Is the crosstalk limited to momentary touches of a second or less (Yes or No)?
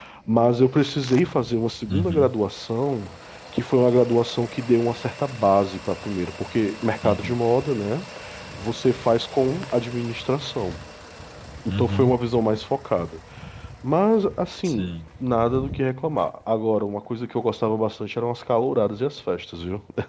Yes